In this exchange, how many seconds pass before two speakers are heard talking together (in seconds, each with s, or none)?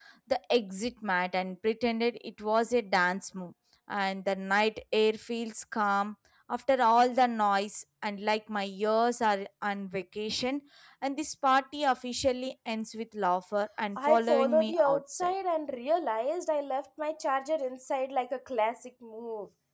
14.0 s